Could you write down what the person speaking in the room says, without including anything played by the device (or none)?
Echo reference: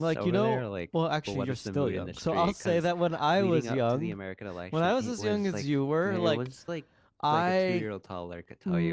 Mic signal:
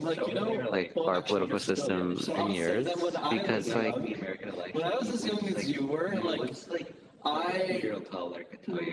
like our political system and yours because like